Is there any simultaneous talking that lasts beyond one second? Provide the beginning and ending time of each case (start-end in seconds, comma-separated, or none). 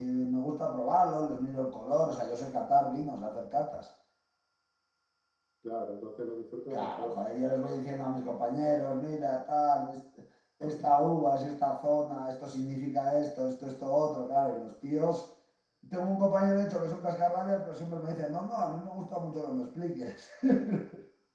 none